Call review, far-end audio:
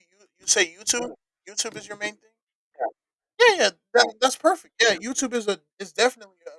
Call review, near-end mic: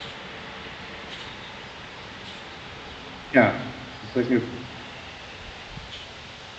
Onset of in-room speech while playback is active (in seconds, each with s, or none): 3.3 s